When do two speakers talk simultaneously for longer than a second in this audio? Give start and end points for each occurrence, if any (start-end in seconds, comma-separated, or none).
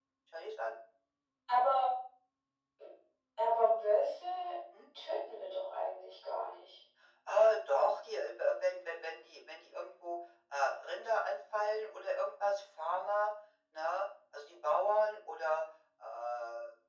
none